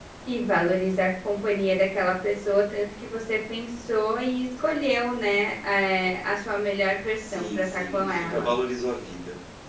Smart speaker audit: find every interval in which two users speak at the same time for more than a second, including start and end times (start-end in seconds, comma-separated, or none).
7.2-8.5